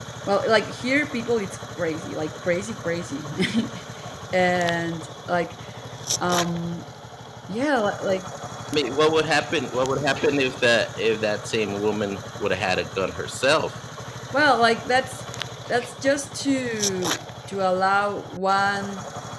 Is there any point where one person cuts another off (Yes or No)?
No